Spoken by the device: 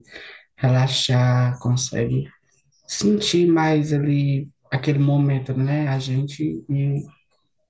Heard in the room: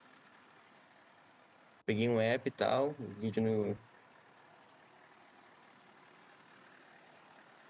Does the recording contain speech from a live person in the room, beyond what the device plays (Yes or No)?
Yes